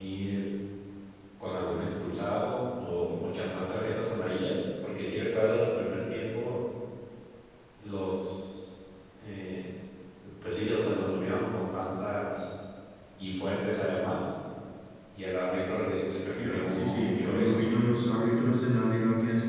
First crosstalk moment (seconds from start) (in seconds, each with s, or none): 16.4 s